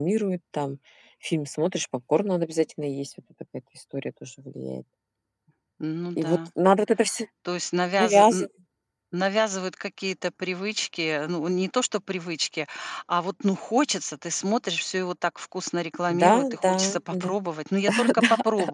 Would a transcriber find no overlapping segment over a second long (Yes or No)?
No